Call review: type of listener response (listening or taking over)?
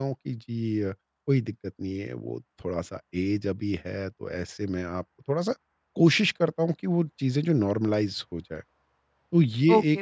taking over